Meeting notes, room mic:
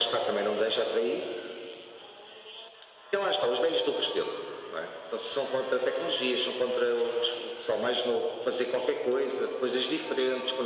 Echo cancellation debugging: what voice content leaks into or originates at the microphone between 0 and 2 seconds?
echo only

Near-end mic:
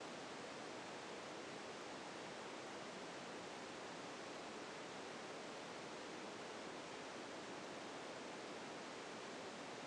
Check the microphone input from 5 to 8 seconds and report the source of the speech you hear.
neither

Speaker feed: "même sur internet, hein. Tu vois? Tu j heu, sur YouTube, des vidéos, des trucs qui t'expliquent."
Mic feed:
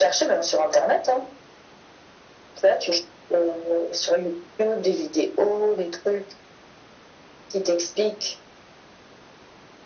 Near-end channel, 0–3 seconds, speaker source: echo only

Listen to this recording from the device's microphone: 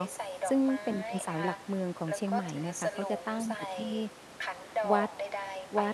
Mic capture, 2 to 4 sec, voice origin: both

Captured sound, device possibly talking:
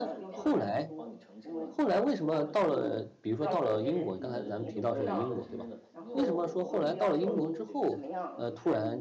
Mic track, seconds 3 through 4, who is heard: both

